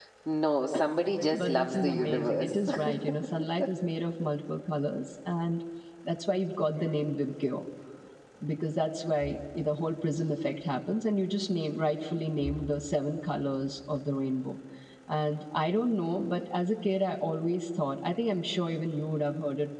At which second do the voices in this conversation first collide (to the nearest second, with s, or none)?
1 s